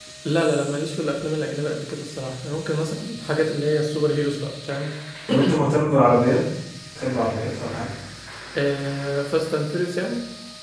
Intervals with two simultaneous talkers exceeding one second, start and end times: none

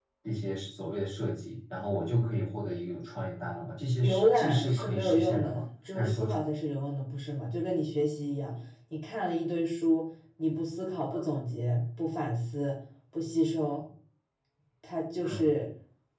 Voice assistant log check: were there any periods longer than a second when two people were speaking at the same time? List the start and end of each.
4.0-5.6

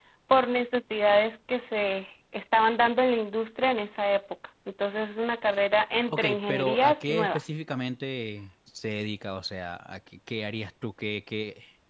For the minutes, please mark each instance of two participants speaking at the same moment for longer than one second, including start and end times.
6.1-7.4

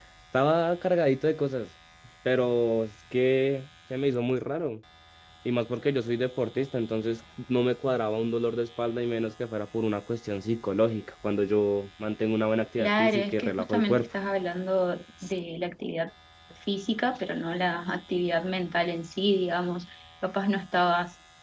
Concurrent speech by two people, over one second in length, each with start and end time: 12.8-14.1

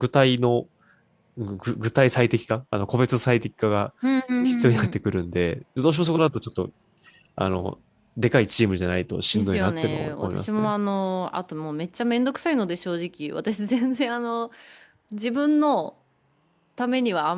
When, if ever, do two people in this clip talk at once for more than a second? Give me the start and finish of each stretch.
9.3-10.7

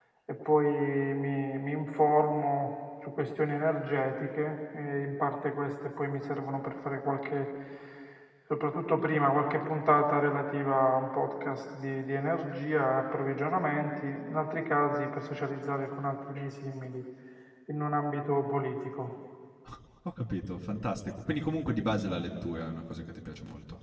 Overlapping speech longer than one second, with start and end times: none

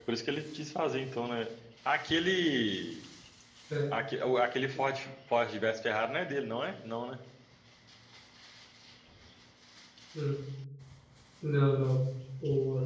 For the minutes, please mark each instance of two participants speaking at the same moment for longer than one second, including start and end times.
none

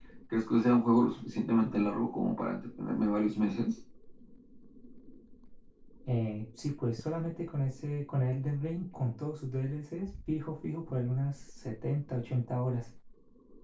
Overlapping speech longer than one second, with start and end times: none

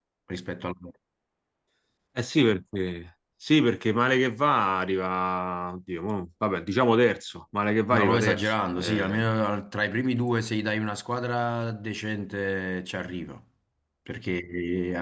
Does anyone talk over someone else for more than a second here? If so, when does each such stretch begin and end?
7.9-9.2

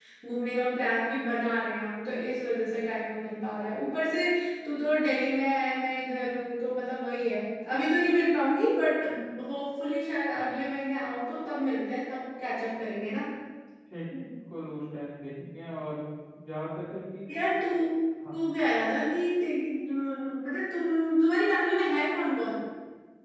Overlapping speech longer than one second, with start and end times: none

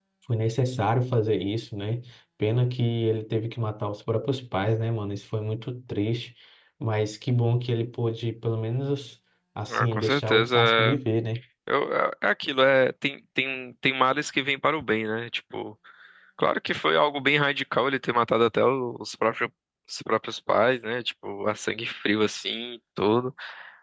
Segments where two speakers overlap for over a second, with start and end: 9.7-11.0

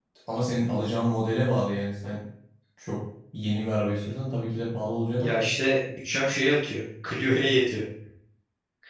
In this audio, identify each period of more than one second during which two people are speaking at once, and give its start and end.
none

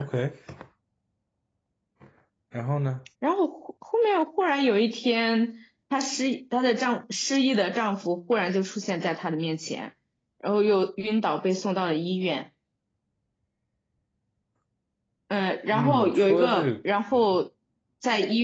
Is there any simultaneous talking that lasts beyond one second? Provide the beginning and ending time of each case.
15.7-16.9

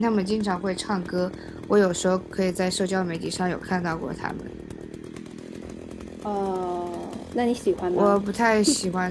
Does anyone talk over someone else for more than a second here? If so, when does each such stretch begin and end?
none

